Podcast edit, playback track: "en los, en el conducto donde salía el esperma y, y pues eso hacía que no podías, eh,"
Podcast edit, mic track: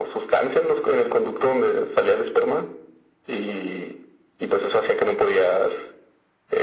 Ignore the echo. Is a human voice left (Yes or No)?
No